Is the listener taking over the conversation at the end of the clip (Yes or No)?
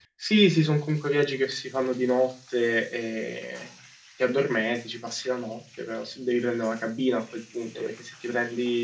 No